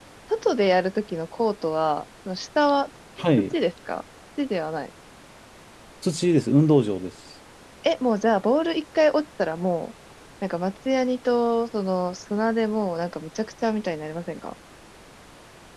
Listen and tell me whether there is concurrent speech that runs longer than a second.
No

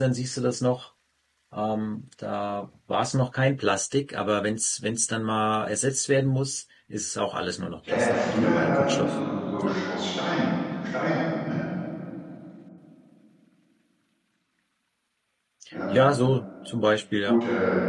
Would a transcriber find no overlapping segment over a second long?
No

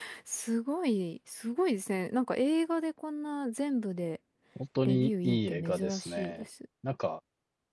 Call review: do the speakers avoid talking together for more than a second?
No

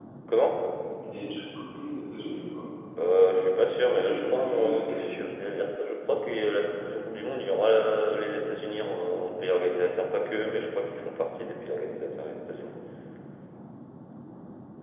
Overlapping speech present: Yes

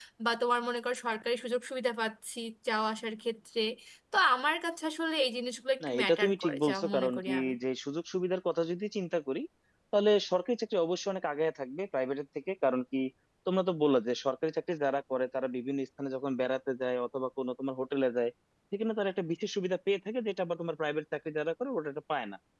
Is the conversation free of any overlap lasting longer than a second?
No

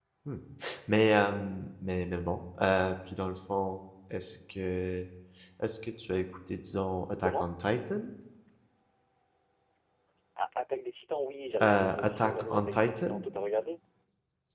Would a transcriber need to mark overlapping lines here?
Yes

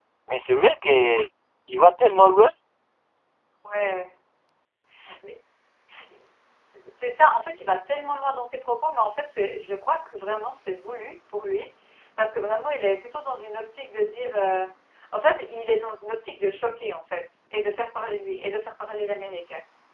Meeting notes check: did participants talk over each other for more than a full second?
No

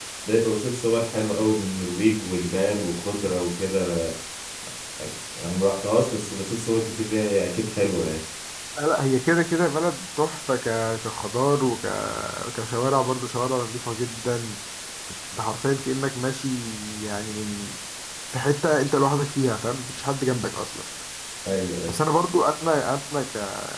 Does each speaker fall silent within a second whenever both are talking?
Yes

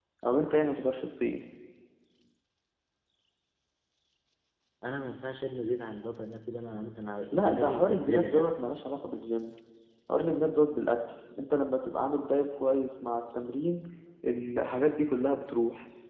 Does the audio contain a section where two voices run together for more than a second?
Yes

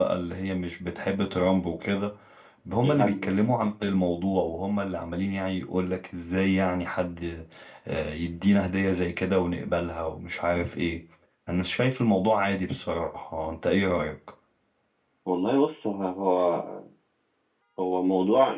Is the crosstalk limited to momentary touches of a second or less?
Yes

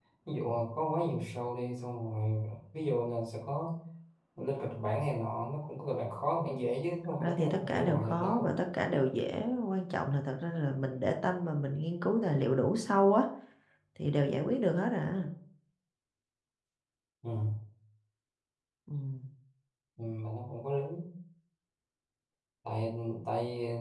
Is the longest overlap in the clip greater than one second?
Yes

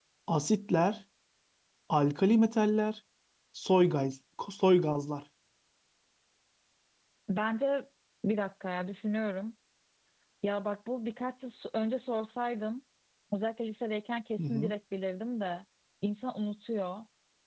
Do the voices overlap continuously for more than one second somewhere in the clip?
No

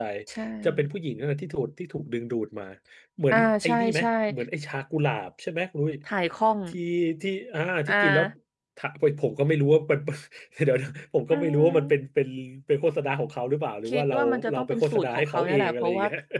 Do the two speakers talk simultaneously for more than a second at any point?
Yes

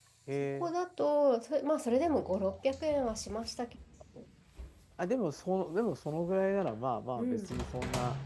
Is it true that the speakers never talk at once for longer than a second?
Yes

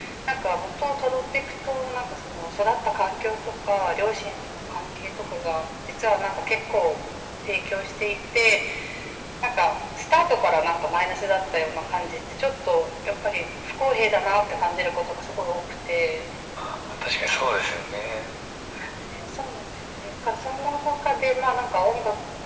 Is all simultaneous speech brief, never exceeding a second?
Yes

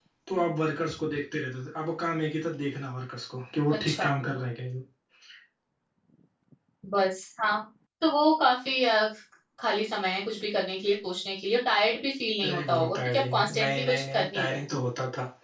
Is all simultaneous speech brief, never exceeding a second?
No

